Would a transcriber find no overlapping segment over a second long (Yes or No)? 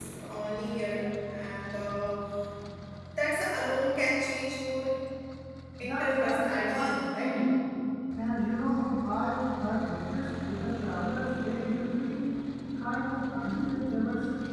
No